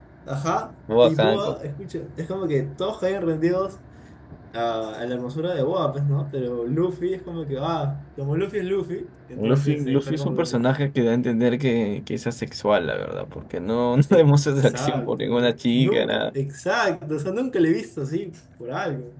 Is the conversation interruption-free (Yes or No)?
No